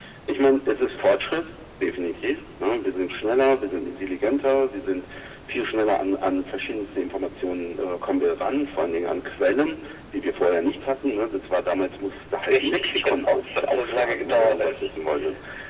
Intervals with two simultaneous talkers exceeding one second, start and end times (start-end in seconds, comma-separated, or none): 12.5-14.9